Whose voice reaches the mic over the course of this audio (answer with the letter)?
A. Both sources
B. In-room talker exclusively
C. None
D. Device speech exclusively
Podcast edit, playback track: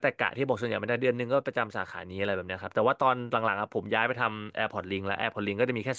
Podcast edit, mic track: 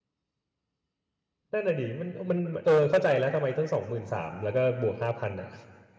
B